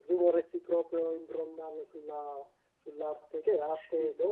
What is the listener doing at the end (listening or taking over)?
listening